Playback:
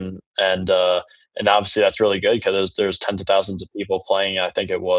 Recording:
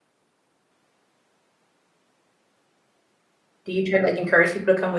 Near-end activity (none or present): present